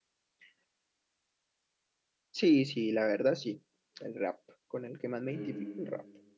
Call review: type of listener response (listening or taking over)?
taking over